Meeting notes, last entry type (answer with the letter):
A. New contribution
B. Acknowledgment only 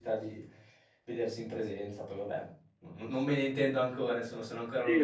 A